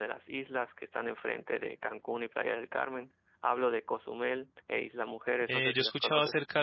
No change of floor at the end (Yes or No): No